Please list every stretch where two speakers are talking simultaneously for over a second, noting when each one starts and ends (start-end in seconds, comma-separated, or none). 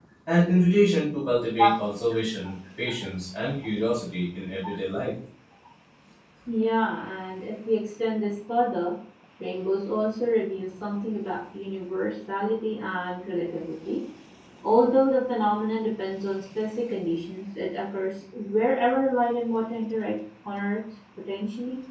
none